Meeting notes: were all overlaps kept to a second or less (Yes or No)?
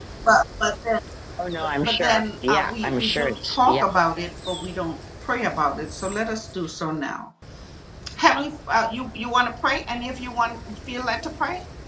No